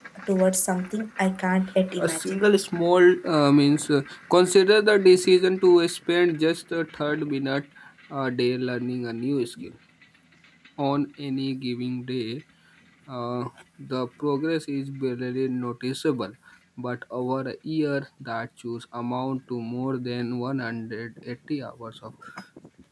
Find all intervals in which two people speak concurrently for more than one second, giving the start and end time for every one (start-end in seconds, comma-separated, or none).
none